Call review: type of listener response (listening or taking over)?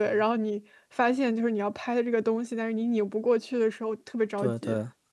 taking over